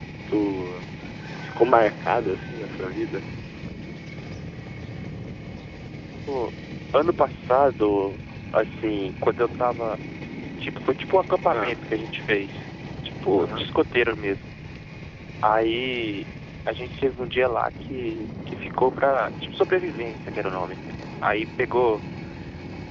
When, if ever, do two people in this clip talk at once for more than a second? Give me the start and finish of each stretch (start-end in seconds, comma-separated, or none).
none